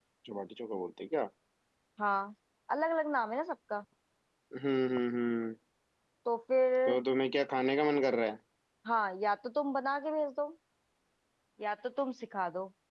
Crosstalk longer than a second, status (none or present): none